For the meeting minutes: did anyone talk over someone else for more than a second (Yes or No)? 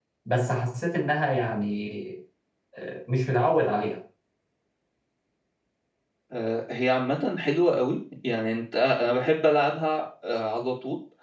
No